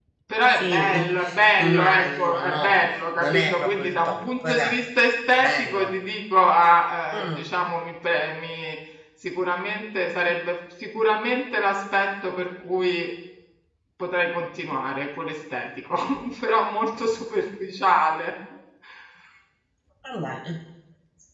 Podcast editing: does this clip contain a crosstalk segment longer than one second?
Yes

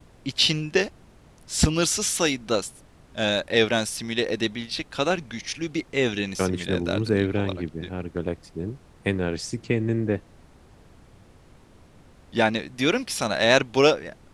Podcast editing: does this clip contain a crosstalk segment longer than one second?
Yes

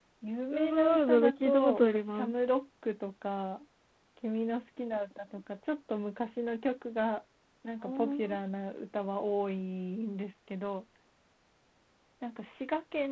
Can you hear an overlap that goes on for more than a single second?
Yes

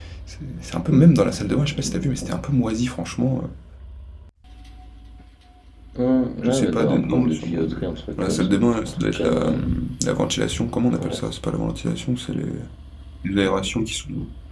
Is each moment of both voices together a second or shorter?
No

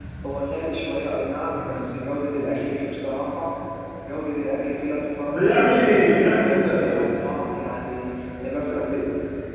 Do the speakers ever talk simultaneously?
Yes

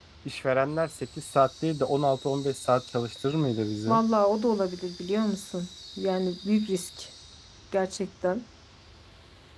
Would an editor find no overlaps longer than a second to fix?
Yes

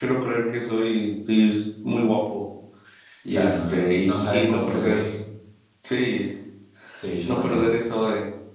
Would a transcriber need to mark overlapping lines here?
Yes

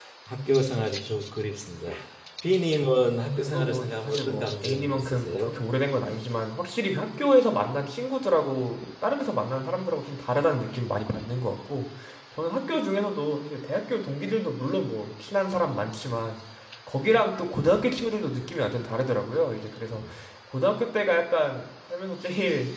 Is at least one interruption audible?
Yes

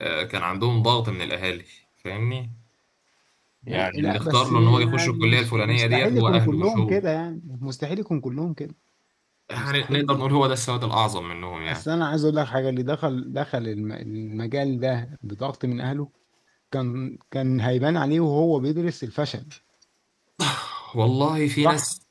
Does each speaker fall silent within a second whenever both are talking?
No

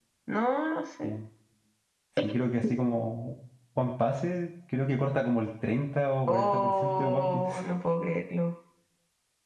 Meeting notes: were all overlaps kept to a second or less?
No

